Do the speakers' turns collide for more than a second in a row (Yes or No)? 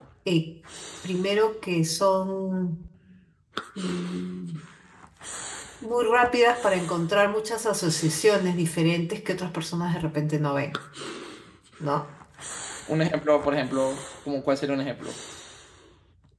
No